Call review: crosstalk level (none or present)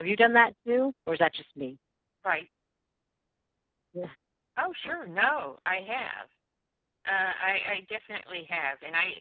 none